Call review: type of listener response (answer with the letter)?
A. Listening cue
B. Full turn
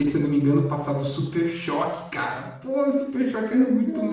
B